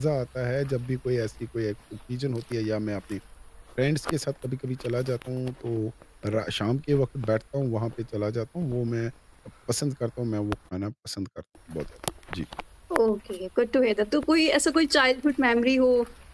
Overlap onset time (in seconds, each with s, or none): none